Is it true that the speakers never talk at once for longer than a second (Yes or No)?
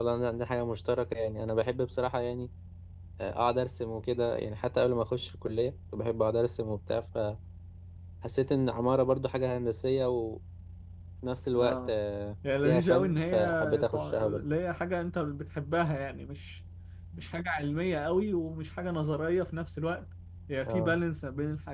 No